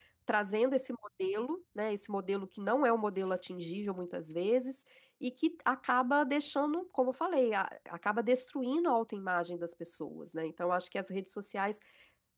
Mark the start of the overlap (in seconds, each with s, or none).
none